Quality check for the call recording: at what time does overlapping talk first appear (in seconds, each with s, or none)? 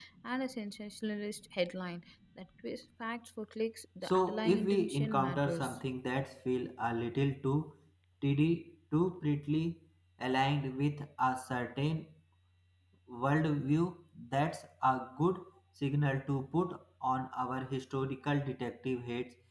4.0 s